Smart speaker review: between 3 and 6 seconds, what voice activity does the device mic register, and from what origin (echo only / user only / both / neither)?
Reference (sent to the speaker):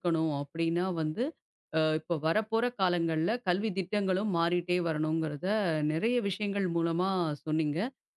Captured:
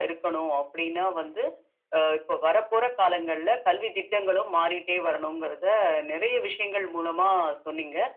echo only